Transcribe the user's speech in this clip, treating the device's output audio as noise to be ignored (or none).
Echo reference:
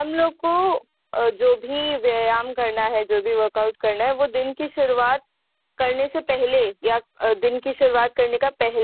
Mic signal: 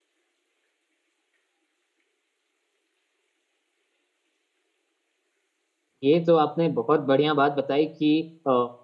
ये तो आपने बहुत बढ़िया बात बताई कि अ,